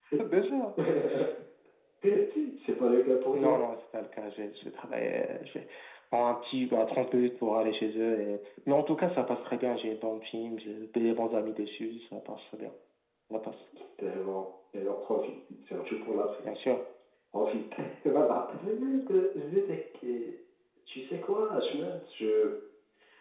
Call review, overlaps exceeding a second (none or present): none